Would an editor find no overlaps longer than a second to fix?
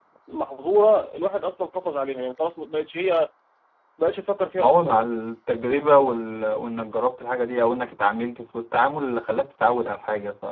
Yes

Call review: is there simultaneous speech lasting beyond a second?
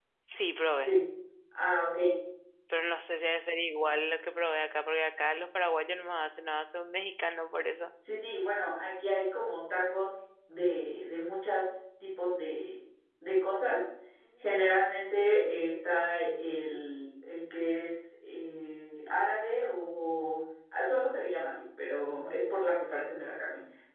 No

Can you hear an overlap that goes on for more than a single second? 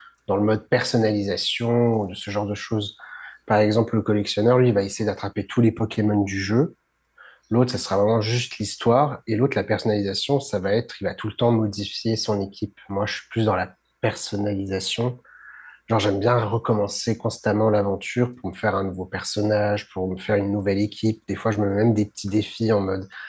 No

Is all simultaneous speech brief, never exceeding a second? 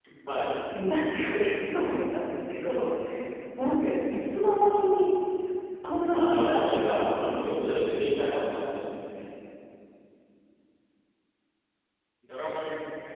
No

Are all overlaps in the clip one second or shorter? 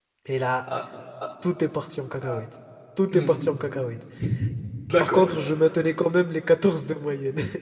Yes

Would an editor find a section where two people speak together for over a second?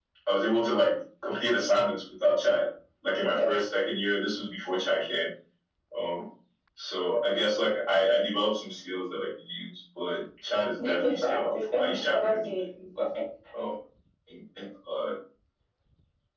Yes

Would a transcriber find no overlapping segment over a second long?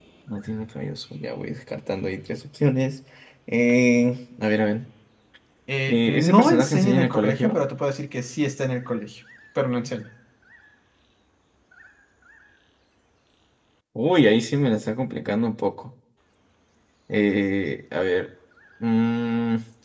No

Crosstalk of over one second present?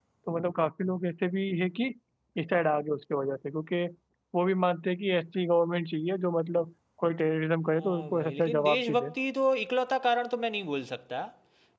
Yes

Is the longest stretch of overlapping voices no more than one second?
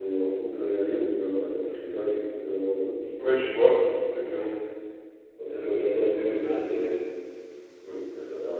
No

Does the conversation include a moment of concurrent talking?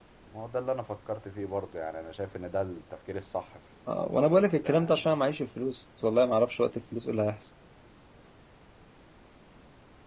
Yes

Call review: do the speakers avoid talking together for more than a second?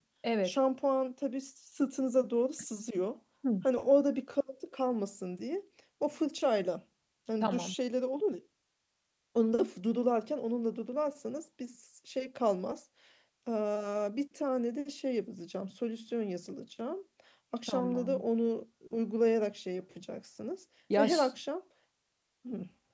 Yes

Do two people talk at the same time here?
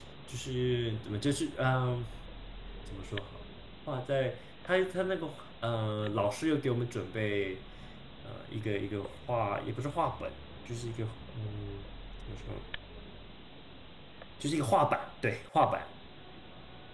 No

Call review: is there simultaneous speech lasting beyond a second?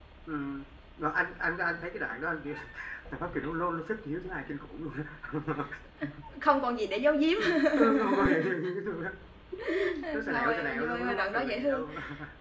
Yes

